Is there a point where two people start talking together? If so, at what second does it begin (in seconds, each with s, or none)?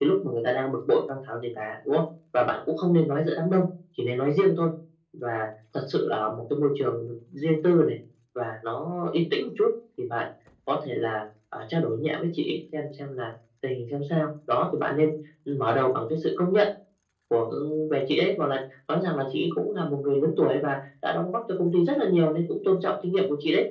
none